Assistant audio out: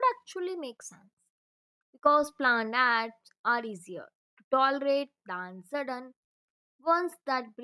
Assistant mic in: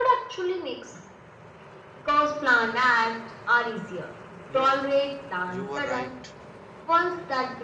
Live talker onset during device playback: 4 s

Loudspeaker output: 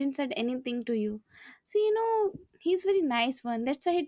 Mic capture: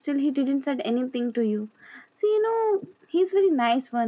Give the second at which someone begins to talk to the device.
none

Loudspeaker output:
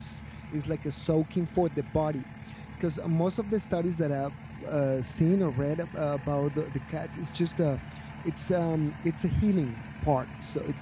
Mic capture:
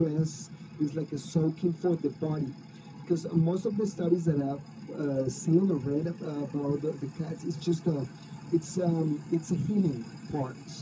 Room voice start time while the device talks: none

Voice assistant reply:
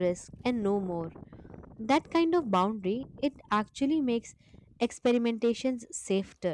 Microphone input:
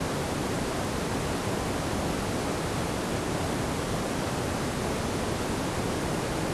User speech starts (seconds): none

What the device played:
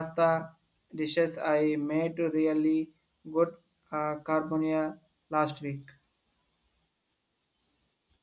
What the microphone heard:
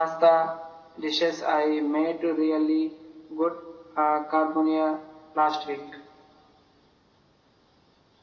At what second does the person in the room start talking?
none

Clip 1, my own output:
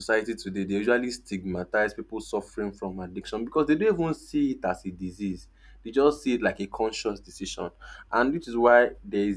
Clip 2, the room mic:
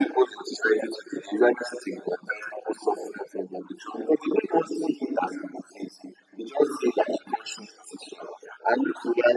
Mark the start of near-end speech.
none

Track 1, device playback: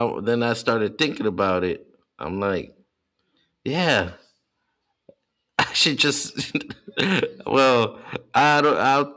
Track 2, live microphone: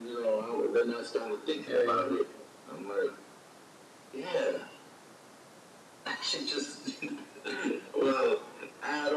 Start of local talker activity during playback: 2 s

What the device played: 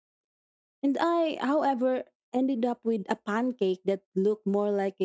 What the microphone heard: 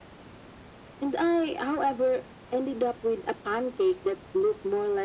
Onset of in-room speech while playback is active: none

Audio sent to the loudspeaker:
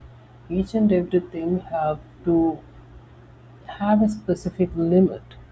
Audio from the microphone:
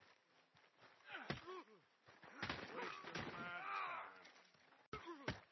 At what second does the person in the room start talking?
none

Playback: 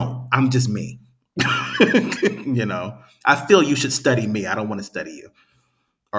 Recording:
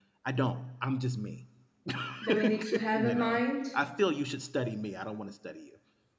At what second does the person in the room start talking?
2 s

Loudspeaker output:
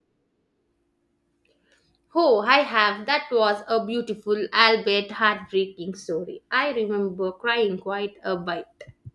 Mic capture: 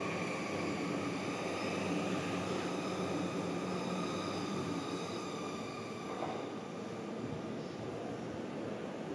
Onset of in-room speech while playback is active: none

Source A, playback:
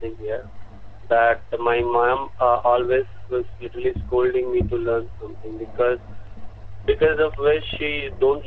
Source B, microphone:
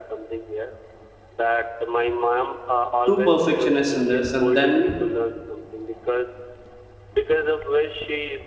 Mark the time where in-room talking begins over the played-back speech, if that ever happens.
3 s

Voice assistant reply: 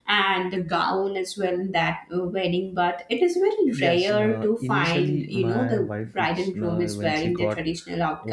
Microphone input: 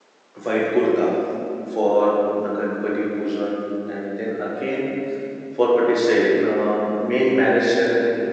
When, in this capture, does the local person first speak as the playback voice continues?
0 s

